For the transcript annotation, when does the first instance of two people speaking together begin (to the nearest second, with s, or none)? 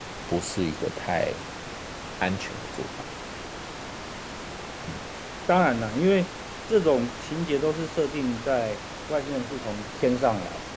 none